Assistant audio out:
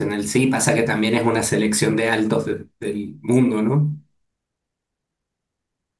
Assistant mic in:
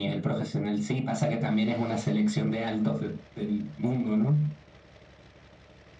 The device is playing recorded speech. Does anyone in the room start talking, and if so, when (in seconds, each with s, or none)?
none